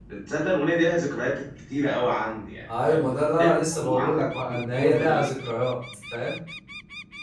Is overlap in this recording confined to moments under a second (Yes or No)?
No